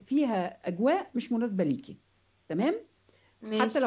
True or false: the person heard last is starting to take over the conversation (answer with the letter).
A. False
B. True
A